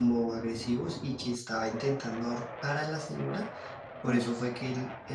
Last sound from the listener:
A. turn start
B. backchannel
B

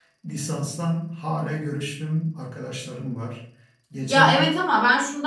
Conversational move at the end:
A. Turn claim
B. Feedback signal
A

